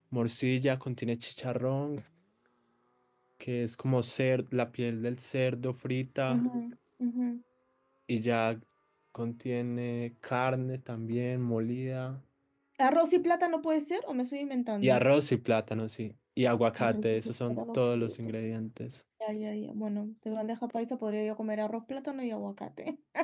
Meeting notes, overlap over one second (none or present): present